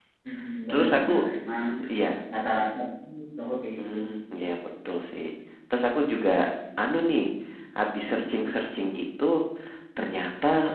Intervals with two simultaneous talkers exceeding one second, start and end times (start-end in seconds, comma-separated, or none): none